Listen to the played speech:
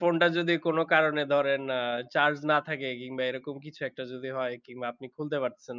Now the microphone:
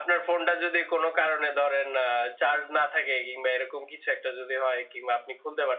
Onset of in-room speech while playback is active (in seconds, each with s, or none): none